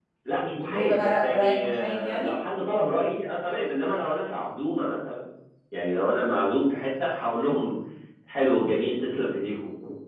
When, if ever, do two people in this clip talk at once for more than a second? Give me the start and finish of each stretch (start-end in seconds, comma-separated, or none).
0.7-2.4